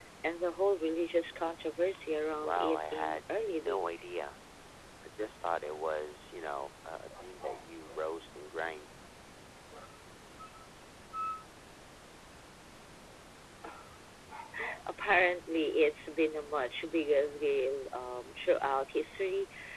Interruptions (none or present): present